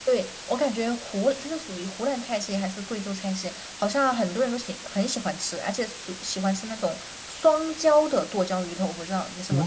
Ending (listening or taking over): taking over